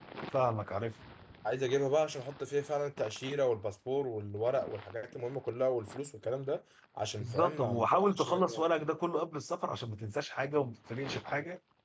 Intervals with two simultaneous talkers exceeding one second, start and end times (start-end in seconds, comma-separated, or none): 7.2-8.6